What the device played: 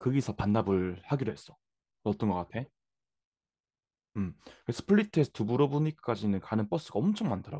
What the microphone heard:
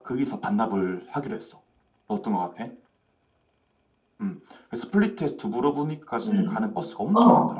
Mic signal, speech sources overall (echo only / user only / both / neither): both